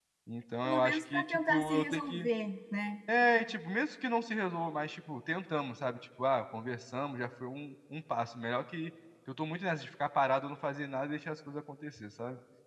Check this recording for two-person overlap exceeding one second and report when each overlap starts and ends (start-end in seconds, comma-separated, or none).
0.6-2.3